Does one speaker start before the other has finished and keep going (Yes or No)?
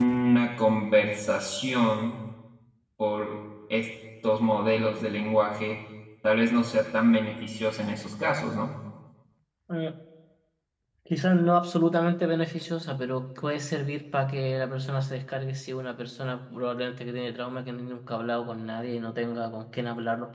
No